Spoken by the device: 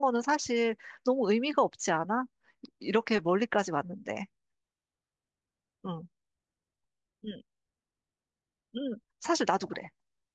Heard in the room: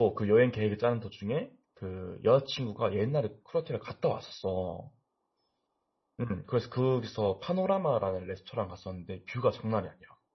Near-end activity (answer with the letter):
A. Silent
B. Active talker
B